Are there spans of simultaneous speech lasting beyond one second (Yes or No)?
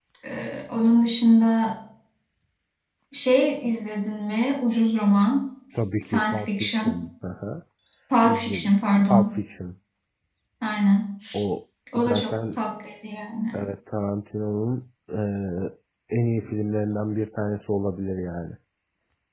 Yes